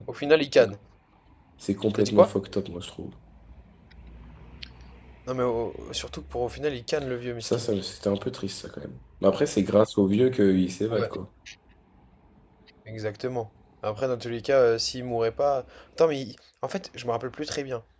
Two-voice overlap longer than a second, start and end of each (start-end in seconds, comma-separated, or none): none